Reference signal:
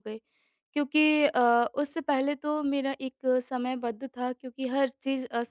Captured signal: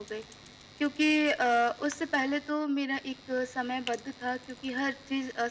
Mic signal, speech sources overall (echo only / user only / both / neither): echo only